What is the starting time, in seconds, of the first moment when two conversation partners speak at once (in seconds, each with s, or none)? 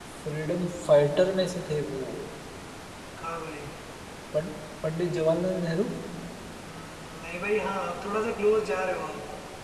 none